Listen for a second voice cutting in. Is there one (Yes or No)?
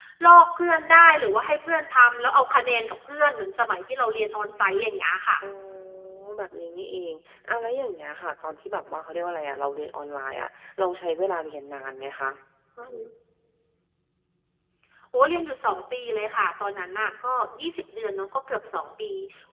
No